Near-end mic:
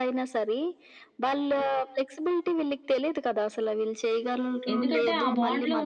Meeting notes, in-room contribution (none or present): present